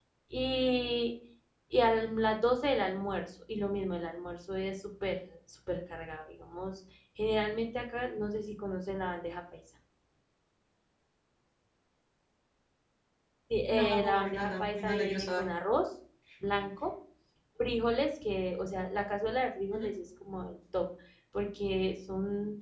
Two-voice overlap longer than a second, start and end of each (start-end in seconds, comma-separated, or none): 13.8-15.4